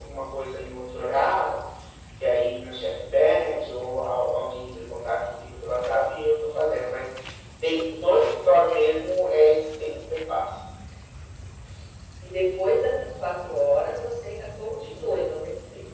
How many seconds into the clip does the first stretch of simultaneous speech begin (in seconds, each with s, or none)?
none